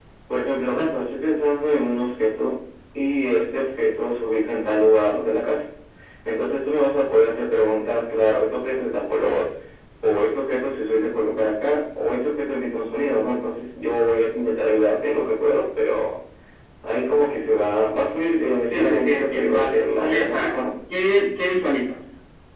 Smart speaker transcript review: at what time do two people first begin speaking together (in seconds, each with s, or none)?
18.7 s